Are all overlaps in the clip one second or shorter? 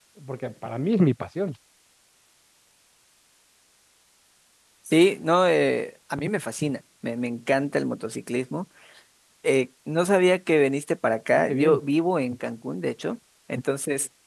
Yes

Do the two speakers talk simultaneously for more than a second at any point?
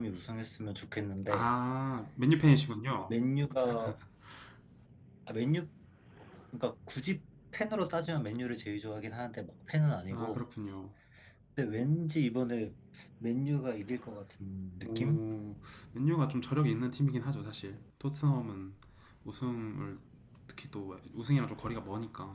No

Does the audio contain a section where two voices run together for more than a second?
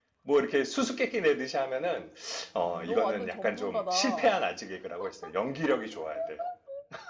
Yes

